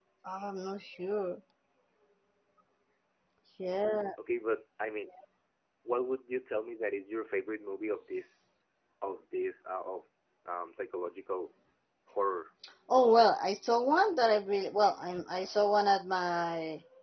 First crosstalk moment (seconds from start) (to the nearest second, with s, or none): none